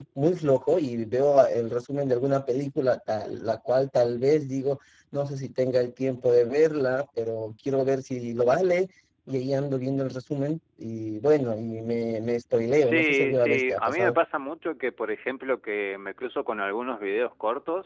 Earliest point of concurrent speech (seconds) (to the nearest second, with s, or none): 13 s